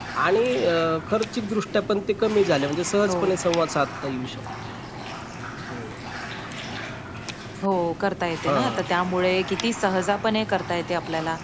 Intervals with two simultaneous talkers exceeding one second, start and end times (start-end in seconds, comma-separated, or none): none